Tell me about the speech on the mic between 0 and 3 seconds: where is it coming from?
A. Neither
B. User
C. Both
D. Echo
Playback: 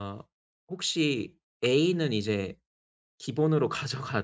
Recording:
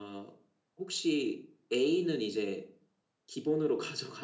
D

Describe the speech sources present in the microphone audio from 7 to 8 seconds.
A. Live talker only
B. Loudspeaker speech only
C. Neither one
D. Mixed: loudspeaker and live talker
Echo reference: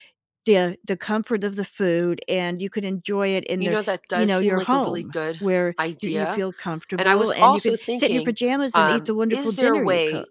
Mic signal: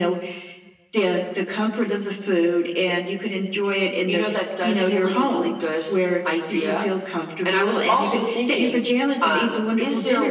B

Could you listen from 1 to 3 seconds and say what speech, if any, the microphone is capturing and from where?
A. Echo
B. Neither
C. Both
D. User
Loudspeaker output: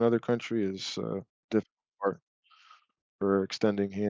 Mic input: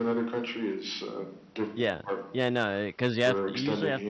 C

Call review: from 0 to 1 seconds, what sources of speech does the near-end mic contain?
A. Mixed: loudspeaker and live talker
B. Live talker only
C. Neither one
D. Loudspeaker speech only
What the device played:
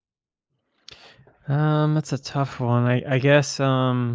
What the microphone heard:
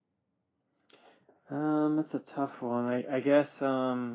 C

